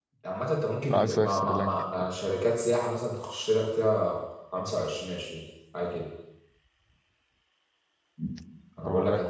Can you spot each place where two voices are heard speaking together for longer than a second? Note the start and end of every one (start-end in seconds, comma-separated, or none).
0.8-2.1